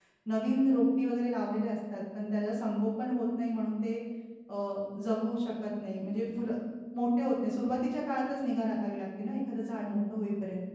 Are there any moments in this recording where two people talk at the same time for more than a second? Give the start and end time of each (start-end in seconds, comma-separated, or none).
none